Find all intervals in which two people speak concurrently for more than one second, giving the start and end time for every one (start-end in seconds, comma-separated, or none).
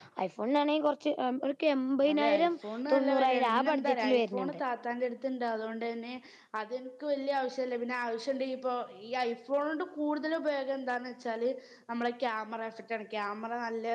2.9-4.6